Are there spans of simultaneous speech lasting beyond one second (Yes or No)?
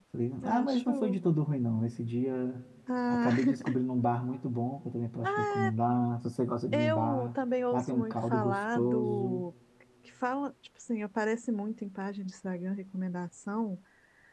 Yes